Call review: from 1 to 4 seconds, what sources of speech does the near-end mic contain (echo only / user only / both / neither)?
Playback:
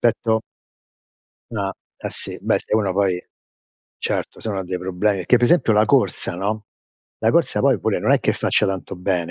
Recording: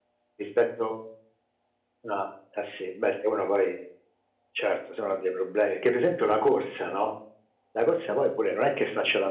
echo only